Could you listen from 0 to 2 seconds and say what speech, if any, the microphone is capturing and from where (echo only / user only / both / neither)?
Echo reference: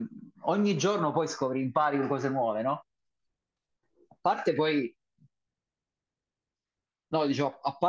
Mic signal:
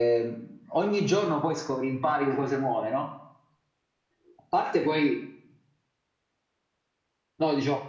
echo only